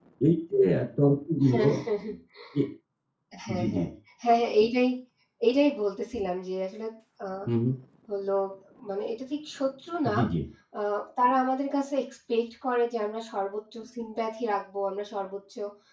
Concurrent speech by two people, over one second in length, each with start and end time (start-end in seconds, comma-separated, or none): none